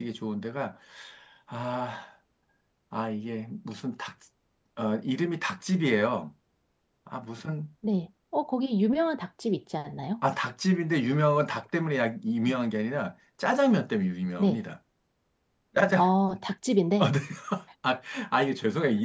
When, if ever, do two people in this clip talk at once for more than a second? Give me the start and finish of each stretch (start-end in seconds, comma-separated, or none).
none